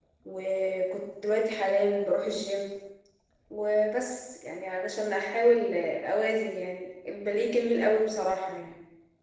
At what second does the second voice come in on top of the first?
none

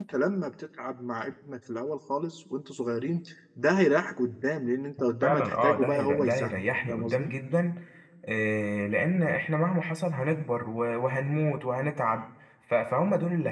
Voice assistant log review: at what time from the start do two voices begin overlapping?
5.2 s

